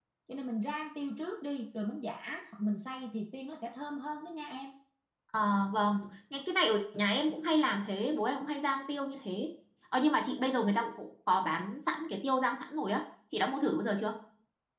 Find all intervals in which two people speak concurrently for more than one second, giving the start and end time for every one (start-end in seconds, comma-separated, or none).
none